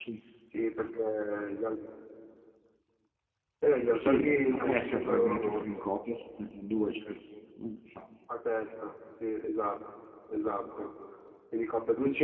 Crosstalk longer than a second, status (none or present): present